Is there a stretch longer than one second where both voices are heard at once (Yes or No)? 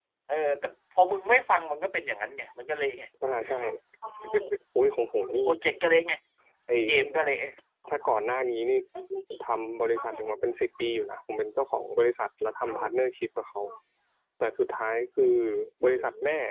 No